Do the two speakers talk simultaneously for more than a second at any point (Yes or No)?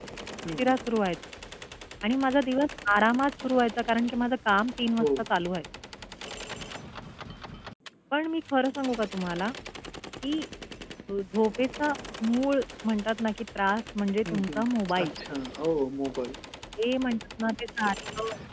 No